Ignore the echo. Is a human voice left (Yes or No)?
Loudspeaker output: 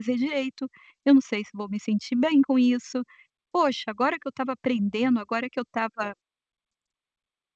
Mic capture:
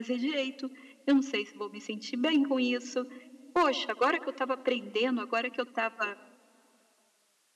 No